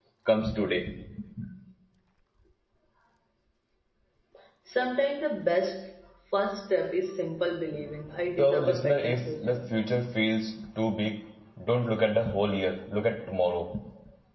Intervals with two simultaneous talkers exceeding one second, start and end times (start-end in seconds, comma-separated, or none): 8.4-9.6